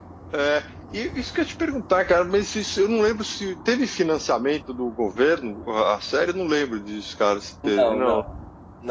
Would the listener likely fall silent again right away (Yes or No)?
No